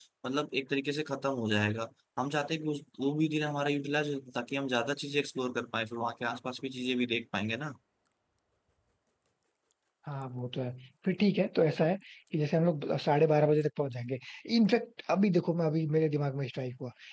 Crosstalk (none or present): none